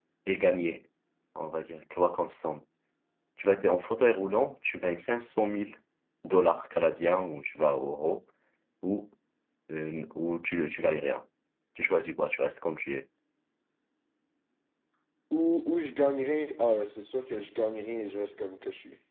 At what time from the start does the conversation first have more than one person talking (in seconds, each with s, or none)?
none